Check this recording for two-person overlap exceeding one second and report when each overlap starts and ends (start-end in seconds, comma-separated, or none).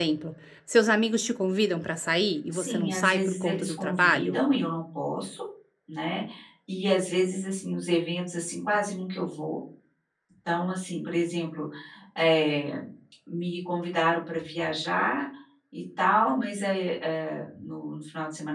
2.5-4.4